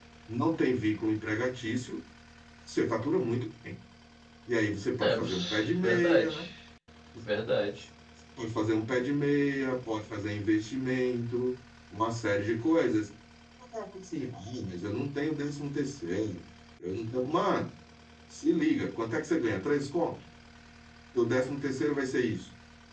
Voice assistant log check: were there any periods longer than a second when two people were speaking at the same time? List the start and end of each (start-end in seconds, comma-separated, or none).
5.0-6.3